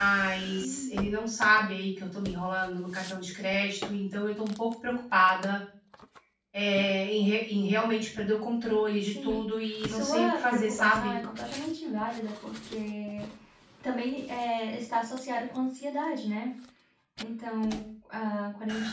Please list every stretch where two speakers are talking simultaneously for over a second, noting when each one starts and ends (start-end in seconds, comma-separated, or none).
9.9-11.2